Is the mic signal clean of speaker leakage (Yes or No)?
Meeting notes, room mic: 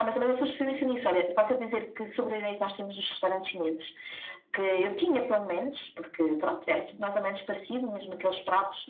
No